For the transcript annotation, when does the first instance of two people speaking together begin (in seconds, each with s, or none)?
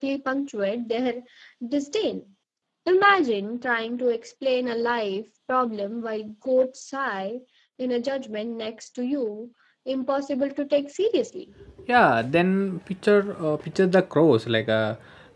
none